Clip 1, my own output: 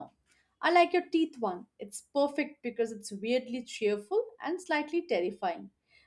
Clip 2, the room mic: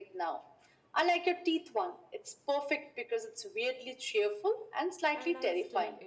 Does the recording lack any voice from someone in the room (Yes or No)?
No